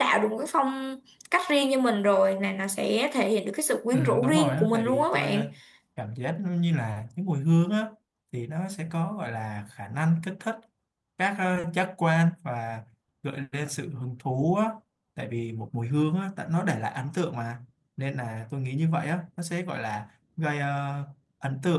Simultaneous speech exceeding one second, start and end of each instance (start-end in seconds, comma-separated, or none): 3.9-5.4